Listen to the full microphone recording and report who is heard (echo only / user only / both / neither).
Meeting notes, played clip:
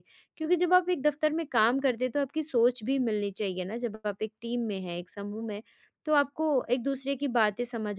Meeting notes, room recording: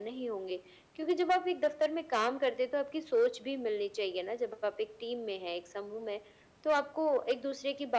echo only